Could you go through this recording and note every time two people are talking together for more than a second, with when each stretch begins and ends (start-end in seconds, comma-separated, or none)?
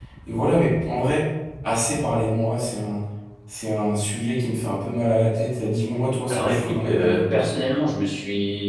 6.3-7.6